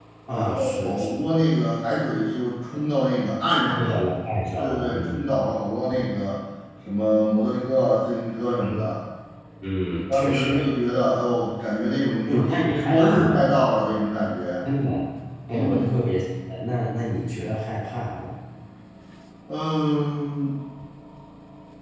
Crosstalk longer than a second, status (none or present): present